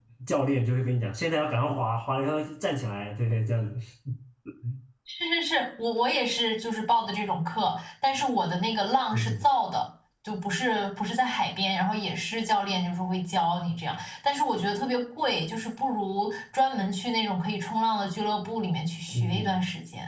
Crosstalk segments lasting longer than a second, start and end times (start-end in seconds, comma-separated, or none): none